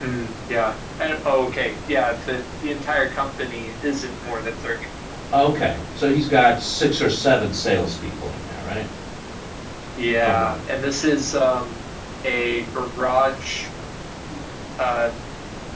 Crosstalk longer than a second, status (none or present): none